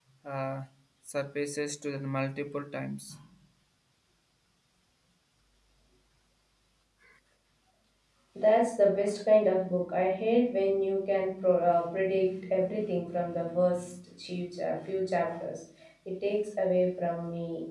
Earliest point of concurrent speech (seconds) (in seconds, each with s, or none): none